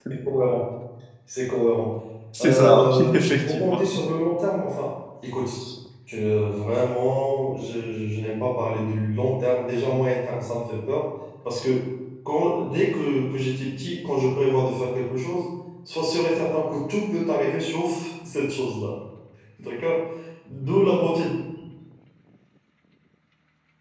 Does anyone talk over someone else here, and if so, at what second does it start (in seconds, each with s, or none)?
2.4 s